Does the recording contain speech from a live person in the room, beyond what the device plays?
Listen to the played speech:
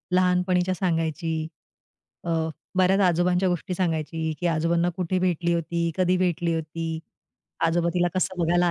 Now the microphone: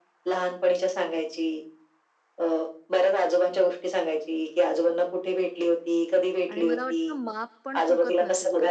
Yes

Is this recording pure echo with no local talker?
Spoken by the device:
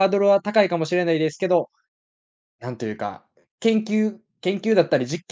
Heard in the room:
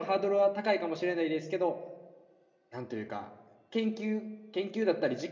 Yes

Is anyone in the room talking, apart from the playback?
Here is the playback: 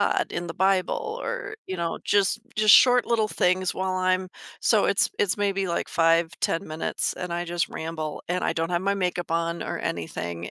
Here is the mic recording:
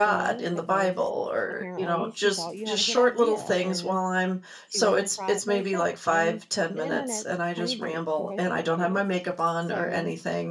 Yes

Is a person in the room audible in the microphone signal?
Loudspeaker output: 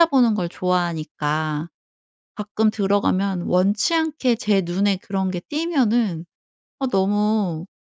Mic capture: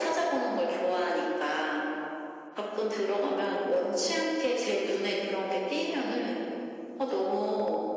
No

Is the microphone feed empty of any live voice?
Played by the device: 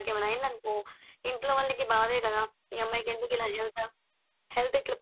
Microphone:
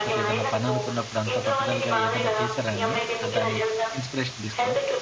No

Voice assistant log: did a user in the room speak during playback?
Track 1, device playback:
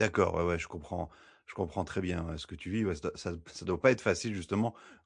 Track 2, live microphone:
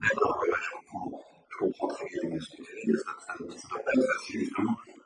No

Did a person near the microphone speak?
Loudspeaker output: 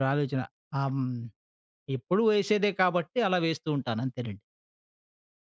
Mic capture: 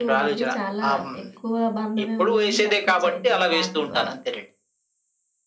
Yes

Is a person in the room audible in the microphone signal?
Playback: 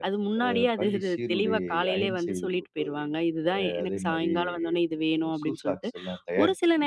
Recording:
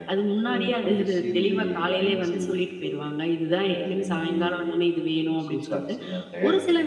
No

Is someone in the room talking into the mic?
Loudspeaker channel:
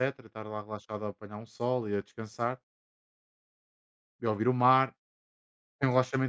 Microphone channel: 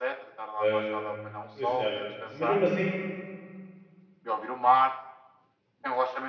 Yes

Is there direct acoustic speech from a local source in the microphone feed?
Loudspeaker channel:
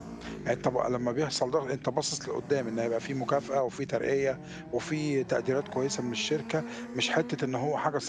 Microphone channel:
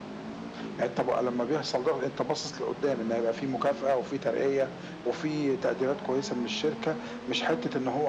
No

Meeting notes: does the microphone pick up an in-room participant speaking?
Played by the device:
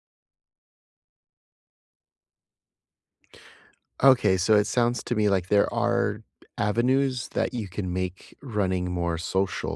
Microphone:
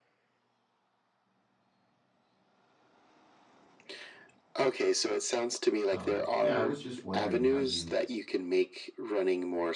Yes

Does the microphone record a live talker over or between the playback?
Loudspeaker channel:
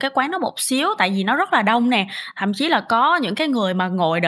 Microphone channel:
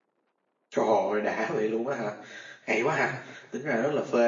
Yes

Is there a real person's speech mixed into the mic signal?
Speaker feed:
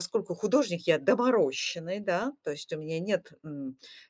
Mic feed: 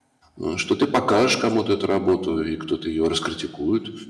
Yes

